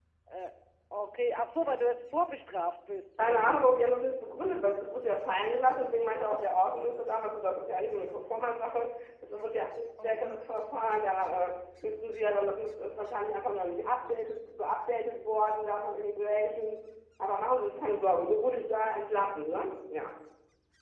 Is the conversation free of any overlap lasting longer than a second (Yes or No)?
Yes